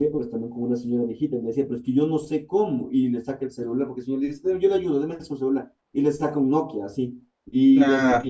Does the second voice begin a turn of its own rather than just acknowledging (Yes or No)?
No